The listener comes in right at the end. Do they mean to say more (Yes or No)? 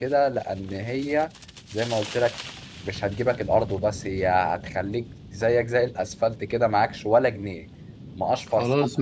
Yes